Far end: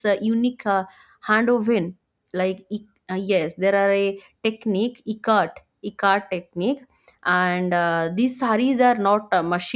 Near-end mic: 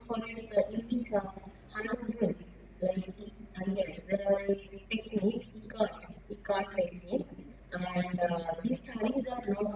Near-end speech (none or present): none